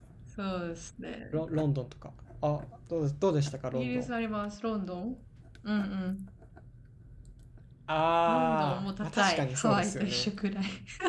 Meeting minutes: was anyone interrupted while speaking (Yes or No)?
Yes